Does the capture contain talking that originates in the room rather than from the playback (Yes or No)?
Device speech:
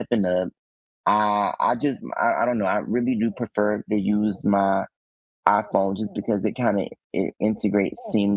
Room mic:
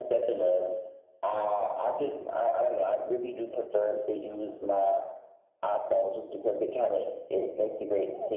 No